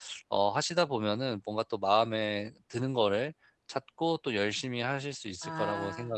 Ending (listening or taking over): taking over